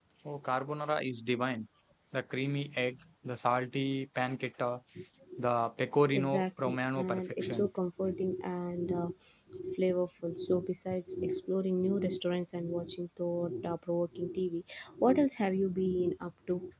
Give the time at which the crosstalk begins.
6 s

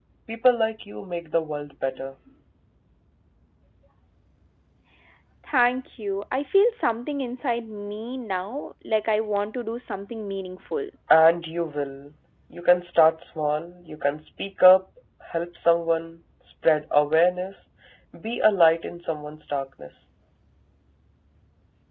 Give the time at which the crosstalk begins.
none

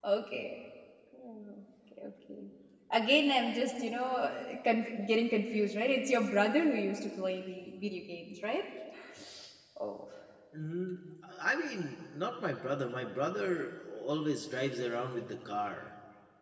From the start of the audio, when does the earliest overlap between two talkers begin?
none

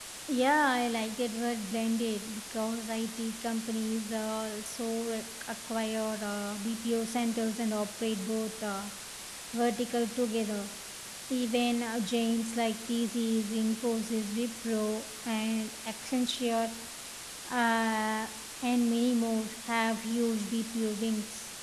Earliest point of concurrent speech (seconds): none

